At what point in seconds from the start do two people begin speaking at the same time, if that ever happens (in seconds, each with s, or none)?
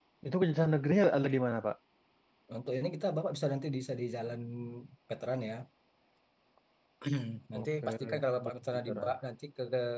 7.6 s